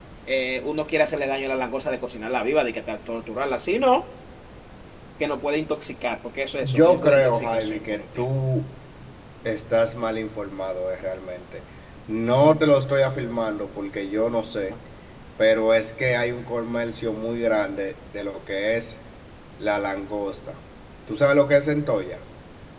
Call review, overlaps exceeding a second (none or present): present